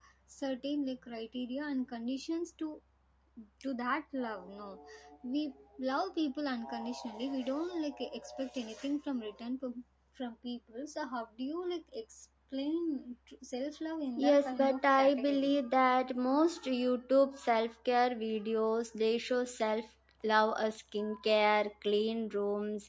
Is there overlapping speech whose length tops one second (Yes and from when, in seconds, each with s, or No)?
Yes, from 14.2 s